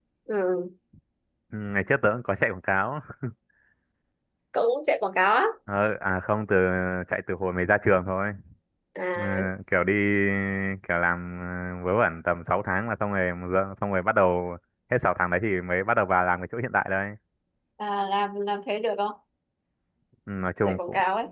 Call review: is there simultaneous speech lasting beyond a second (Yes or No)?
No